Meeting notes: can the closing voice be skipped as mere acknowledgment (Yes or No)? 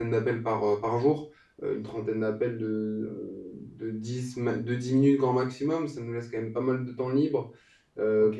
Yes